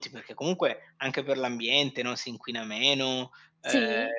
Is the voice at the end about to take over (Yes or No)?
No